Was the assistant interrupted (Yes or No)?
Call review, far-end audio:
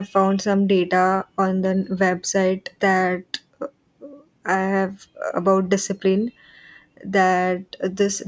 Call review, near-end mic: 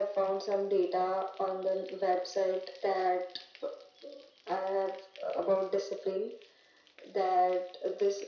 No